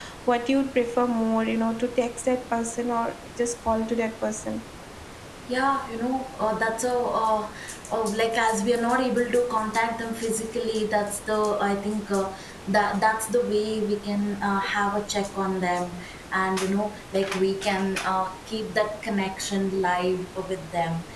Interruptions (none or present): none